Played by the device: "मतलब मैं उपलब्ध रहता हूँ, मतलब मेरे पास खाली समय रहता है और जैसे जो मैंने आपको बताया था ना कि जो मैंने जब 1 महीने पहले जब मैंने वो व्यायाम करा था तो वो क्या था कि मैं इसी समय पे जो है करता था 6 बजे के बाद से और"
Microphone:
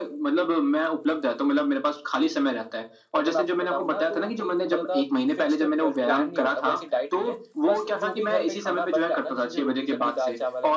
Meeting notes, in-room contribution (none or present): present